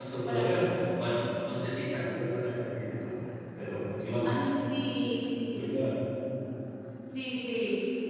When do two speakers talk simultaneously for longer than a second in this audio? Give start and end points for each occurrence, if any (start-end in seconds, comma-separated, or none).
none